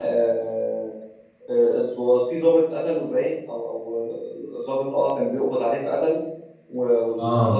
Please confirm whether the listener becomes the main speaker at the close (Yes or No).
No